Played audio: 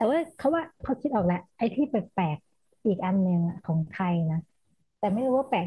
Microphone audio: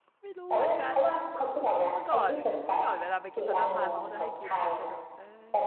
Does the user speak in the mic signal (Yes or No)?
Yes